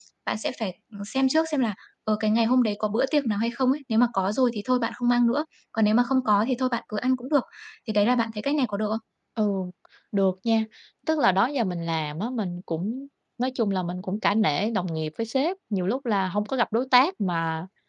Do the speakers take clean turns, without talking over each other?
Yes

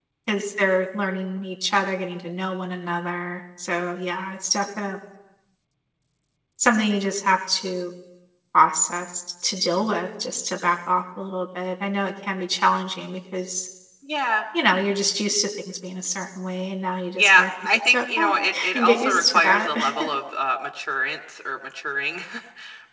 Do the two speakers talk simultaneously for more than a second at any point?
Yes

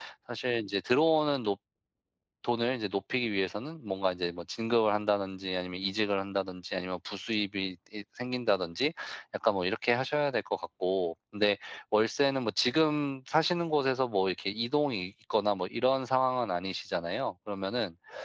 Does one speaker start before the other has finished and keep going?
No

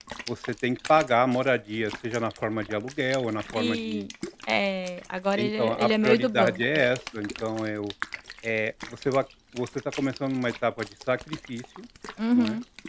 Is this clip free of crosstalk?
No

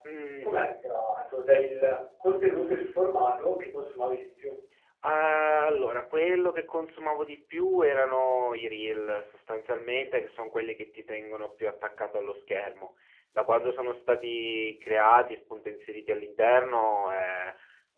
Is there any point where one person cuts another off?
No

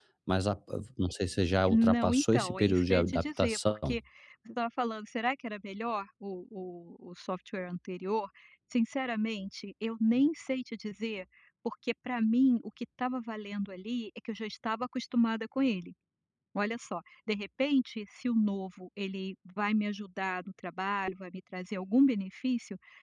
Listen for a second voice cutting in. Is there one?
Yes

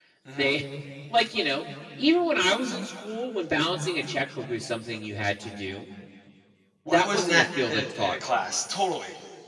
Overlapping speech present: Yes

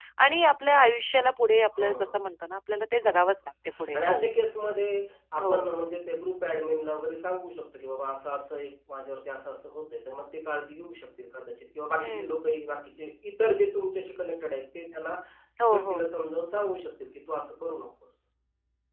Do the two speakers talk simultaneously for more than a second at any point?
No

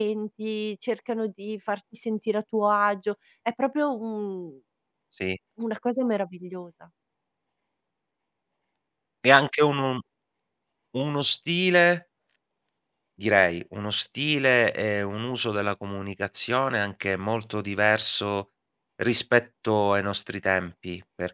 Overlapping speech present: No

